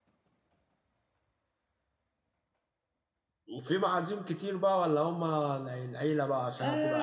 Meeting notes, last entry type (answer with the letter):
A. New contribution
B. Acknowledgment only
A